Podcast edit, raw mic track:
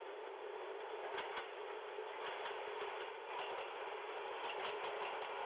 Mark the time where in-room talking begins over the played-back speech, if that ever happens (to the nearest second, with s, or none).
none